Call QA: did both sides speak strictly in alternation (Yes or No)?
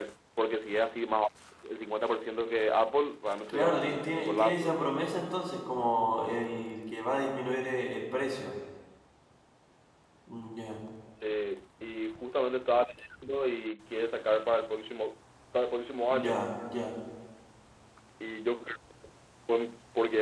No